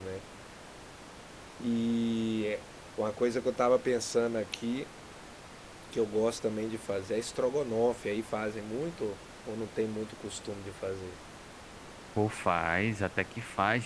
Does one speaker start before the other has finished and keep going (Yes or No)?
No